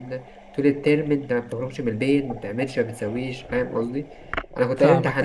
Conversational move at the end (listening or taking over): listening